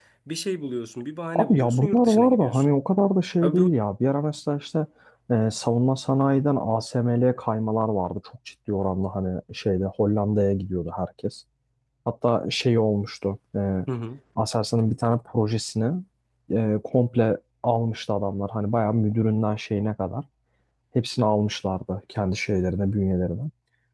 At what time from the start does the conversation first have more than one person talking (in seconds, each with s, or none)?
1.4 s